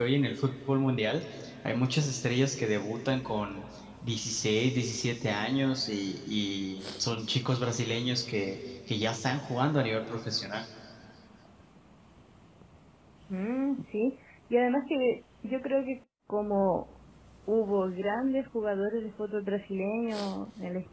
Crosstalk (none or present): none